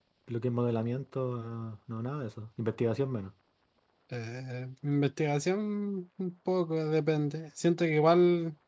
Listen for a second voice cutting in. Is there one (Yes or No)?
No